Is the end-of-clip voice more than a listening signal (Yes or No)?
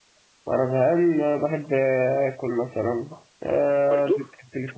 No